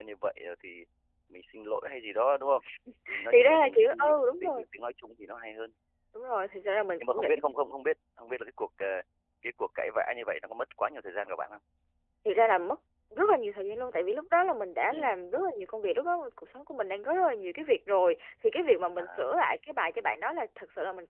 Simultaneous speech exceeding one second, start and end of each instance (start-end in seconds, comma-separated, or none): 3.3-4.6